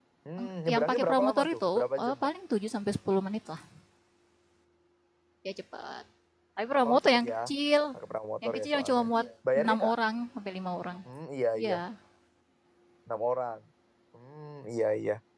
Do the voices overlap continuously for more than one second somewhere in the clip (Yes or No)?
Yes